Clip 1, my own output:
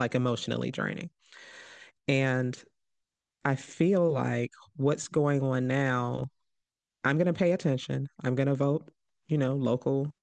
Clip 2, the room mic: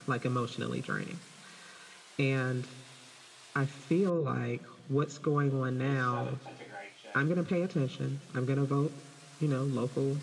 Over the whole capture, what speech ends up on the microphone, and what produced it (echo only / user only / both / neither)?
both